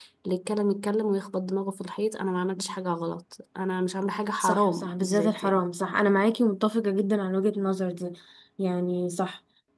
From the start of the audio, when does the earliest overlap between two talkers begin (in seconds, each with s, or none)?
4.4 s